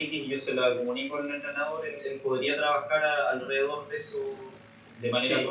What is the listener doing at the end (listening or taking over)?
taking over